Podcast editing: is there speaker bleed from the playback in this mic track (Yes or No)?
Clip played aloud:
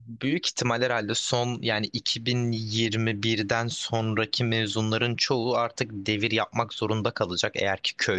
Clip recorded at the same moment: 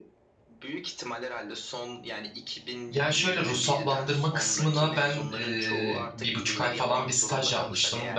Yes